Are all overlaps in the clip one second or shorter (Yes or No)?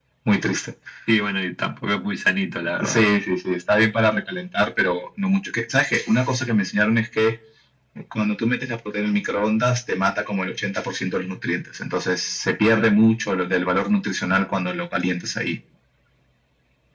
Yes